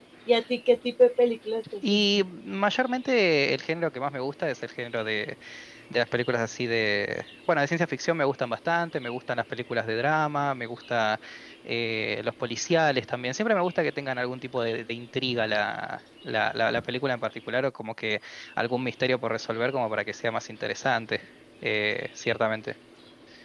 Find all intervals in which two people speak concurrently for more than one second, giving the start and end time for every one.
none

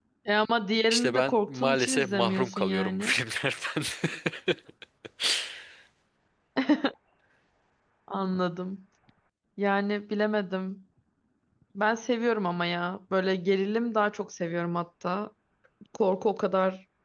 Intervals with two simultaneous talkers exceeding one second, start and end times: 0.9-3.1

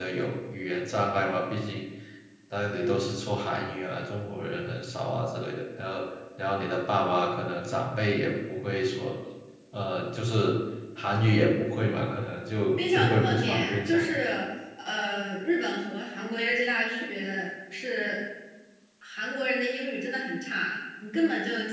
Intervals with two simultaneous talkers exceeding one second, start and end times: 12.9-14.2

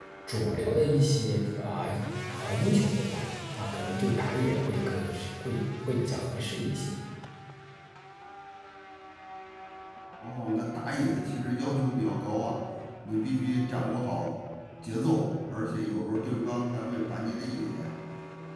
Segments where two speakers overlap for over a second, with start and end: none

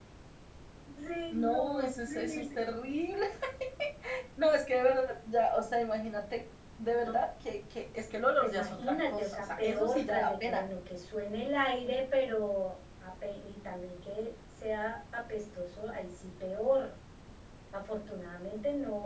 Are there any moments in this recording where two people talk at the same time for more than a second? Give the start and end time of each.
1.3-2.6, 8.4-10.6

